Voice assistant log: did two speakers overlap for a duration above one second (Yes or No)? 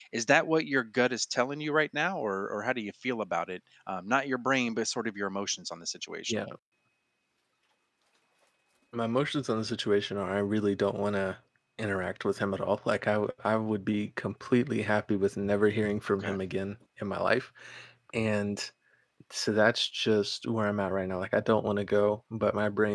No